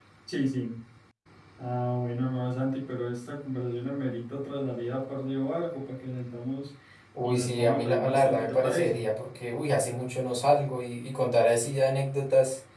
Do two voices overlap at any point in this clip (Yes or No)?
Yes